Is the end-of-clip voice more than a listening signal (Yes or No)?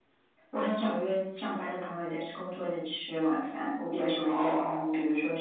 No